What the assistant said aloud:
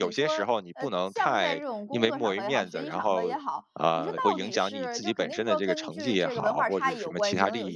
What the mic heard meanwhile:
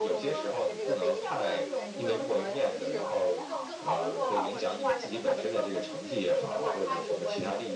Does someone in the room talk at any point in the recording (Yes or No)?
Yes